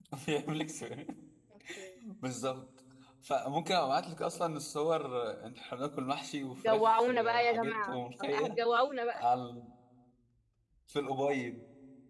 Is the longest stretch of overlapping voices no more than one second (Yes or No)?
No